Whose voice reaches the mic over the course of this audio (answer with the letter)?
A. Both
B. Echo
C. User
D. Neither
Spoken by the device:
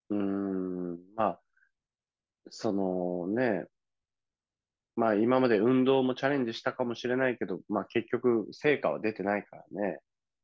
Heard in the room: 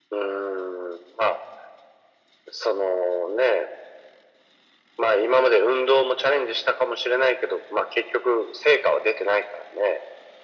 B